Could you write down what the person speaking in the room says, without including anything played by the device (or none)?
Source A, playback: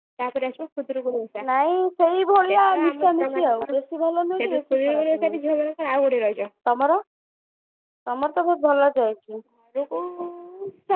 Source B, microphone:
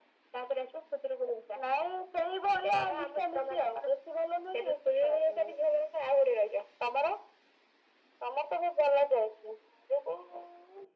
none